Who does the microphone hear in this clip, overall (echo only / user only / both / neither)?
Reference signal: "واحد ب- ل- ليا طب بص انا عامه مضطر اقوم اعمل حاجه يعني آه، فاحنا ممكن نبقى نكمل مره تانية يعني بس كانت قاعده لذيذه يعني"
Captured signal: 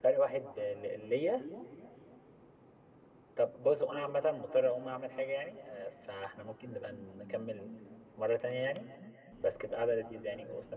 echo only